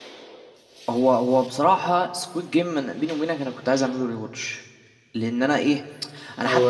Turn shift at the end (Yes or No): No